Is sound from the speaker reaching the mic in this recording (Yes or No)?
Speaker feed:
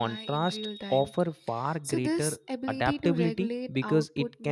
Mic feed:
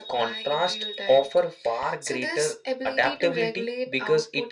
Yes